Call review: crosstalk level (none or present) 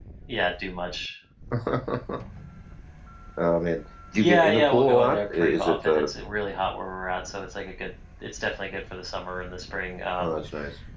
present